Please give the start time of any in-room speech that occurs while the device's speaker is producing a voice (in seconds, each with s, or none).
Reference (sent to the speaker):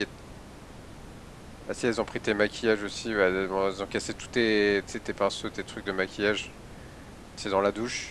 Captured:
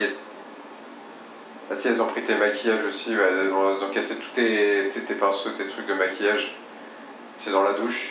none